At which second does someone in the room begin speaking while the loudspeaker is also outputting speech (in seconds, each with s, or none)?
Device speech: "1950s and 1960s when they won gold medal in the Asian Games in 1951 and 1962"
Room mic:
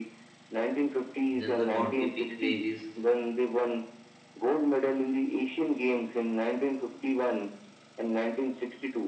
1.3 s